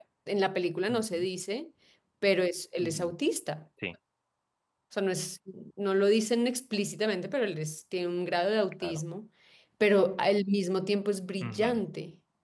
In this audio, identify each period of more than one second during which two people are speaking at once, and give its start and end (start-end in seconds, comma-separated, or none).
none